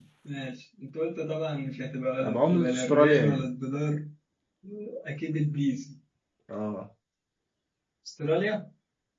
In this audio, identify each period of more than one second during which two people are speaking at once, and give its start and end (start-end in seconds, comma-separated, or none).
2.2-3.5